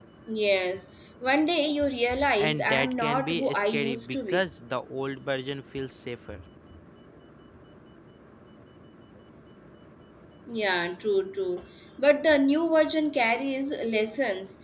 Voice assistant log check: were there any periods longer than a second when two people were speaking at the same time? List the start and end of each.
2.4-4.4

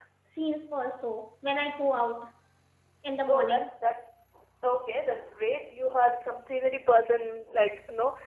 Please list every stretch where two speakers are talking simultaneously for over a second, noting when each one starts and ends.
none

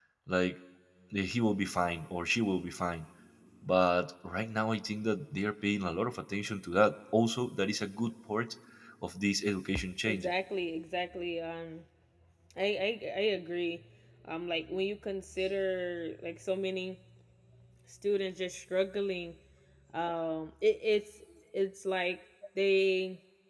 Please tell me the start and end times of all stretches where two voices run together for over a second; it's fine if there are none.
none

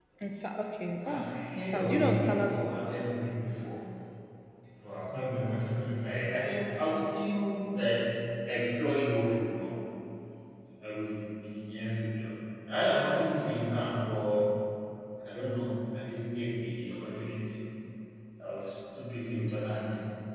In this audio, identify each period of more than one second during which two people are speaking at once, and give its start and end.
1.0-2.7

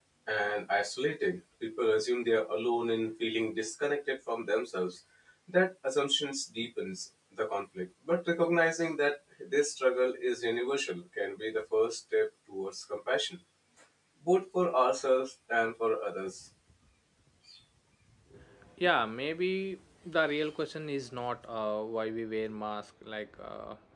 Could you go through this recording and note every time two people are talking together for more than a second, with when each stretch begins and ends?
none

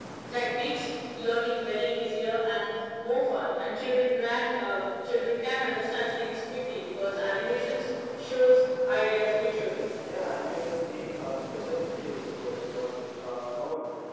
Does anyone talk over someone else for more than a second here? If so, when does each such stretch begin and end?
none

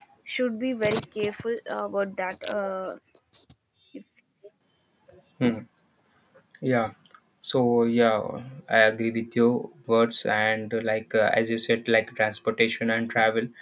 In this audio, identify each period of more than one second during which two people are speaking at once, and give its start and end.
none

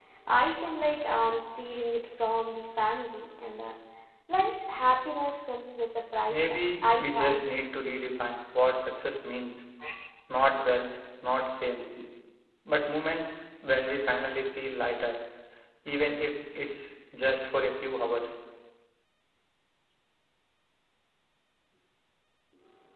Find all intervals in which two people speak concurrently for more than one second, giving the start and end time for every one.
6.3-7.6

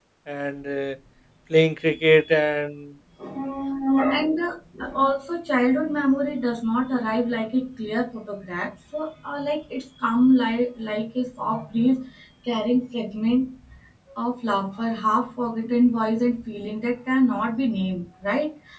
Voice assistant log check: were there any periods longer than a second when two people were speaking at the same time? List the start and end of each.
none

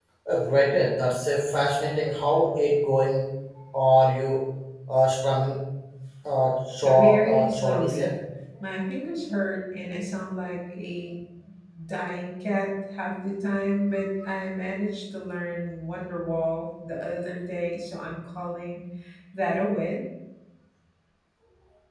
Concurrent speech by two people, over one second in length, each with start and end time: 6.8-8.1

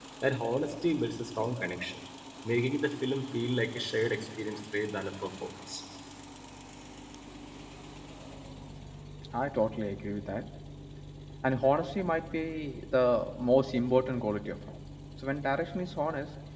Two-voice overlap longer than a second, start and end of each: none

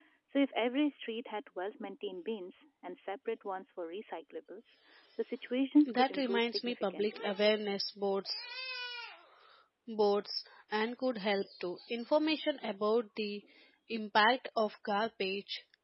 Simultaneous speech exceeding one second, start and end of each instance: 5.9-7.2

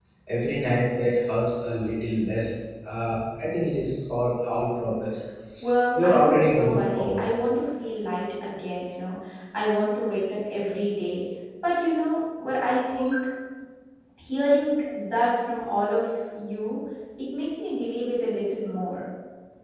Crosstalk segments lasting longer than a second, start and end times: 5.9-7.3

